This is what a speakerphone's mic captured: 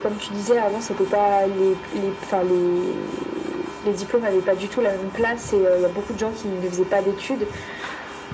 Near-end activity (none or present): none